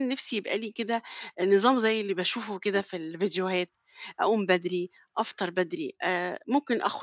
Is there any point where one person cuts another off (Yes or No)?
No